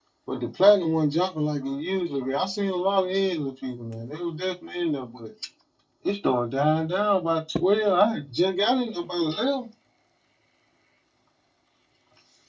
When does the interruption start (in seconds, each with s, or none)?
none